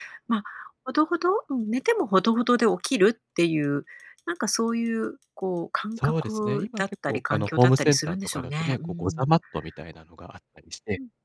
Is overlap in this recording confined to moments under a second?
No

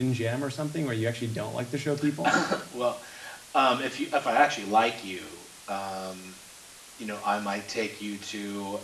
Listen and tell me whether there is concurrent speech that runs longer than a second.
No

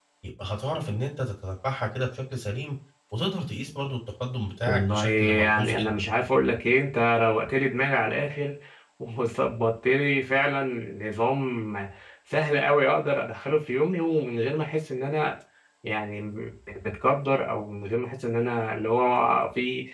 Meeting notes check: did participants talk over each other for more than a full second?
Yes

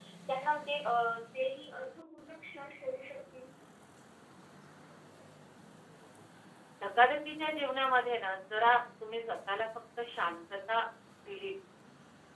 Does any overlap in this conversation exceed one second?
No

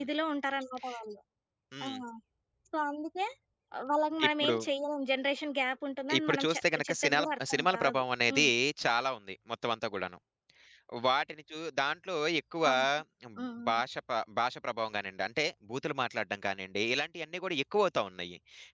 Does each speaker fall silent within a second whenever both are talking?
No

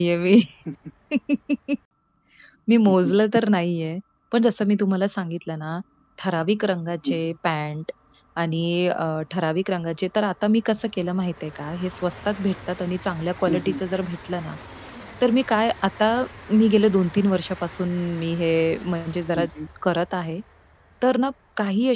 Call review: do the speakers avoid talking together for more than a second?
Yes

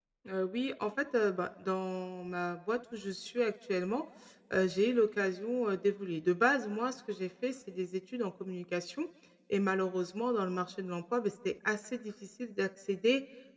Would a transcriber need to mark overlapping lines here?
No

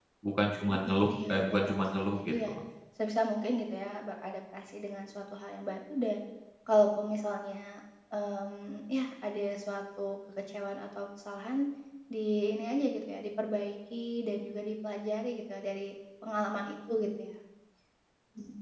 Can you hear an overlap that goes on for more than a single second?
Yes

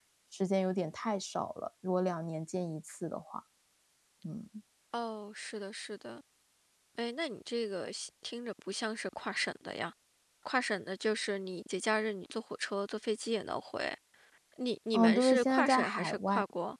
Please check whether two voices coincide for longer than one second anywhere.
Yes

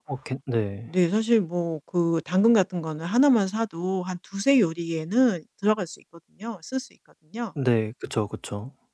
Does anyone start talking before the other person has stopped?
No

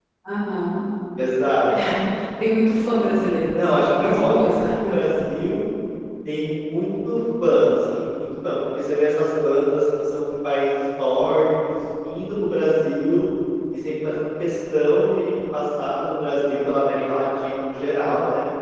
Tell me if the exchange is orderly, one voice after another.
No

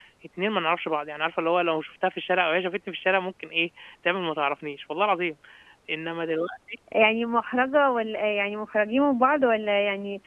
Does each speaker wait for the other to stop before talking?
Yes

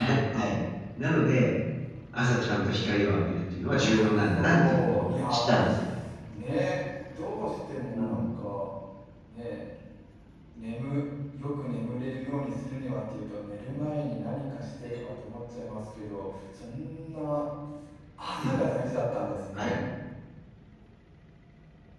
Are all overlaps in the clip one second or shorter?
No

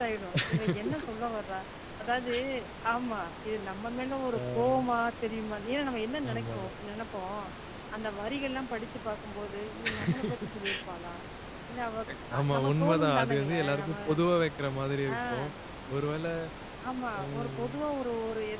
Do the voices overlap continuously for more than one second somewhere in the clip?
Yes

